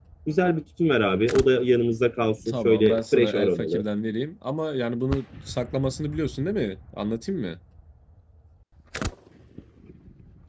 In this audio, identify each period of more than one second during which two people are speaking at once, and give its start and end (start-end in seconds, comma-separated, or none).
2.5-3.8